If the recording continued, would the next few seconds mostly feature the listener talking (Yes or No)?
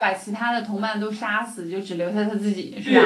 Yes